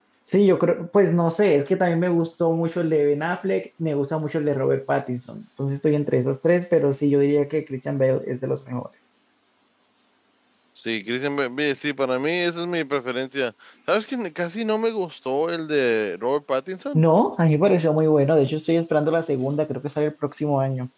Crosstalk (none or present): none